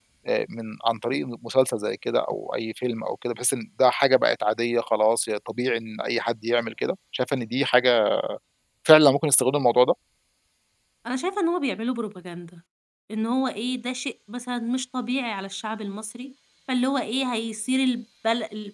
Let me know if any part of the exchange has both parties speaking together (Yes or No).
No